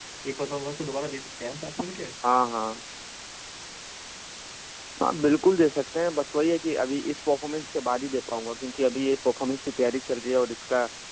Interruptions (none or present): none